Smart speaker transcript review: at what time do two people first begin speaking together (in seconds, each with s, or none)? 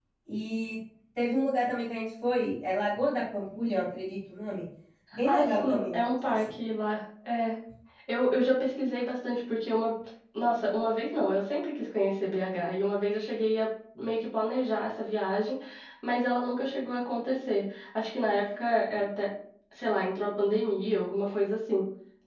5.2 s